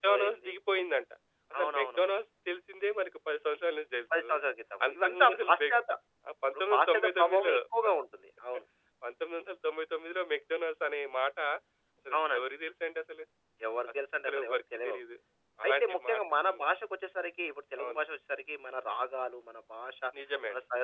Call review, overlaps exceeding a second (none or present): present